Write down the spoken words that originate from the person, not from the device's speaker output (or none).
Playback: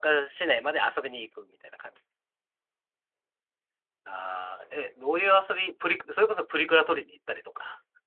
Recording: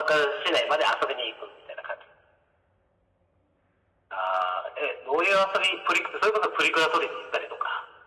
none